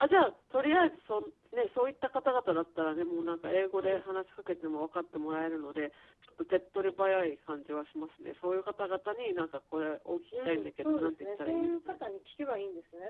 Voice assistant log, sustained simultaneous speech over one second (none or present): present